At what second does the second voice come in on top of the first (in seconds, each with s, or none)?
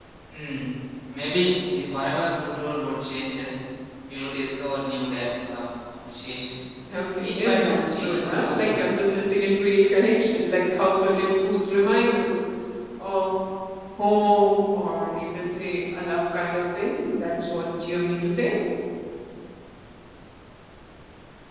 7.2 s